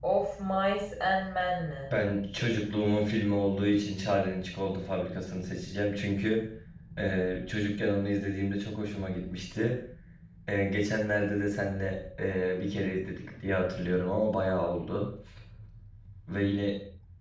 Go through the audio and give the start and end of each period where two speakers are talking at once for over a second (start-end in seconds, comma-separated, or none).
none